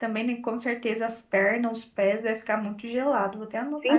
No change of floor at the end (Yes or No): No